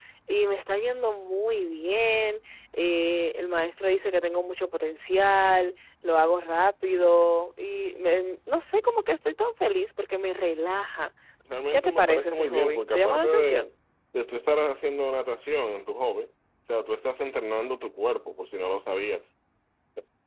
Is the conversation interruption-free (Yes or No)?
No